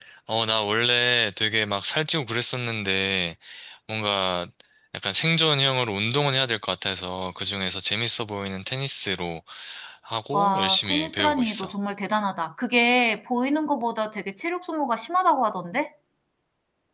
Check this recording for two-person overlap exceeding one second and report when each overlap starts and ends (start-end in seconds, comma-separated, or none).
10.3-11.7